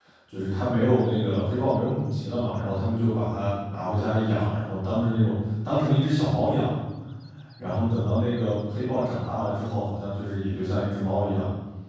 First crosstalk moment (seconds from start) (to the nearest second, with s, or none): none